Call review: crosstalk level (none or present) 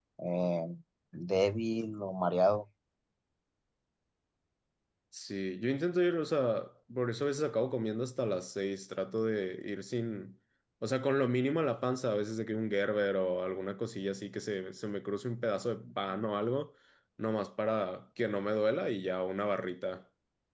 none